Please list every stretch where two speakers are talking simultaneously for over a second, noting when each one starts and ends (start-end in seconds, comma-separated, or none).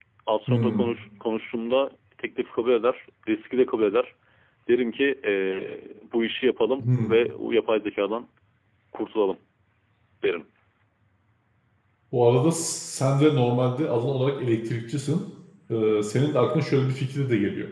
none